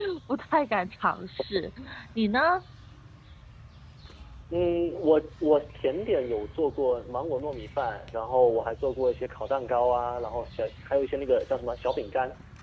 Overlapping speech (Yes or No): No